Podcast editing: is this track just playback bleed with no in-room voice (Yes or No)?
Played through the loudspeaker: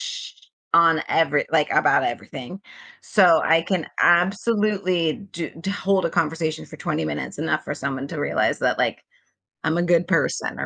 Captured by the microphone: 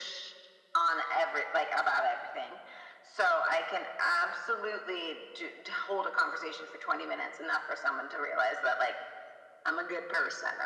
Yes